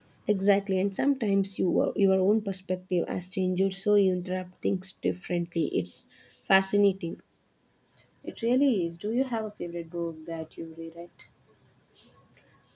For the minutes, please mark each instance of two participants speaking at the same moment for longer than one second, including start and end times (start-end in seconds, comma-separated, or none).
none